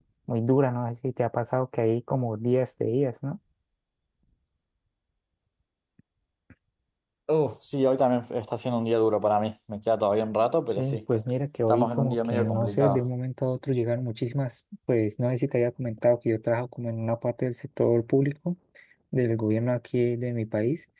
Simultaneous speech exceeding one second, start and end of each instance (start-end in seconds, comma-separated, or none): 11.7-13.0